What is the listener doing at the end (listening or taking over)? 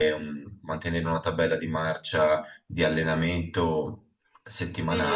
taking over